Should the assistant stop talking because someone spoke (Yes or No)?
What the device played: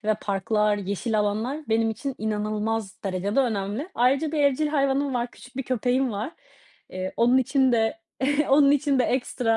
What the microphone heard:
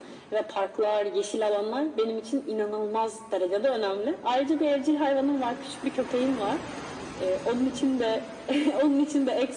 No